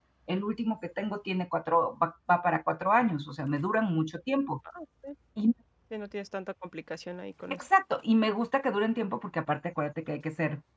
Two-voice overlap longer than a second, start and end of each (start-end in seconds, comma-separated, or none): none